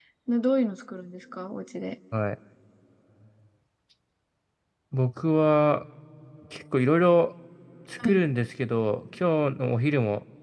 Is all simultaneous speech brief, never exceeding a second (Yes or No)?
Yes